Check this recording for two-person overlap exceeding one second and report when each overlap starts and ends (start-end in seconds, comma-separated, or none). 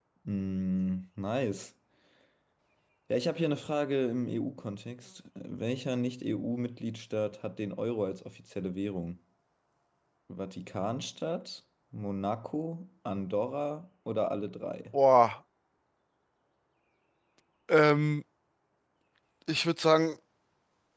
none